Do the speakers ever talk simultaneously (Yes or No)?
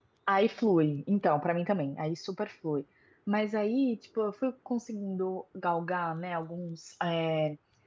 No